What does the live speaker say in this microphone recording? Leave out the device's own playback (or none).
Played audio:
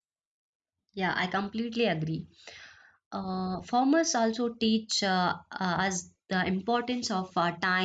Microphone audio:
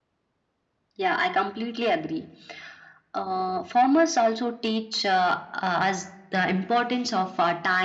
none